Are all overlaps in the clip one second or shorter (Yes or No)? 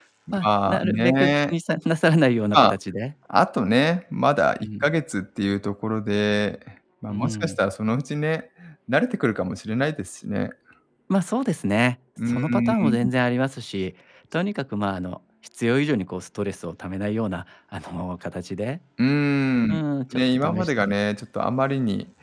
No